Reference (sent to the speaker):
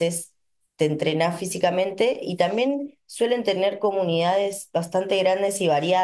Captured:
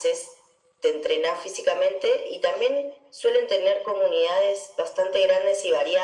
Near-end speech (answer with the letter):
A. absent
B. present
A